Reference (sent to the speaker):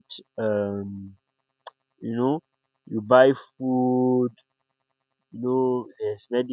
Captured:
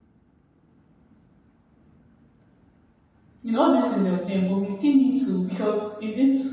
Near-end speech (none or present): present